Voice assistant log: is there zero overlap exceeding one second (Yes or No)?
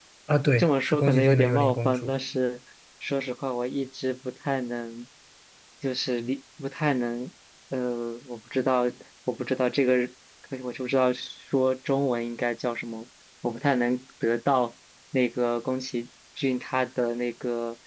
No